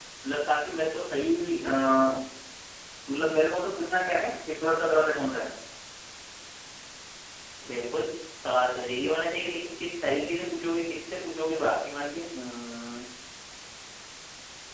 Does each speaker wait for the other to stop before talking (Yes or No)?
Yes